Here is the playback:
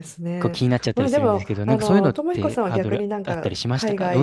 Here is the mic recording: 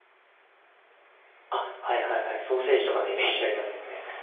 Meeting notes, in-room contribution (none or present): present